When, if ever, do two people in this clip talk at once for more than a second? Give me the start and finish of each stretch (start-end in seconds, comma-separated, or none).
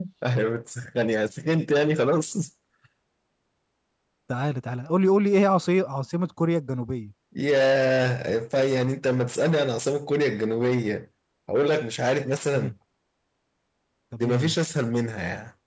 none